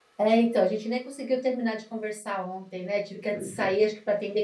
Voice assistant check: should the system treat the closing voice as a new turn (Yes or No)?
No